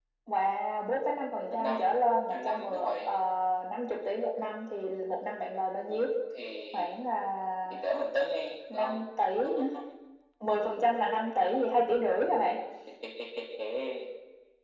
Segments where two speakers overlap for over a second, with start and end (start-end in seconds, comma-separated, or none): 1.5-3.1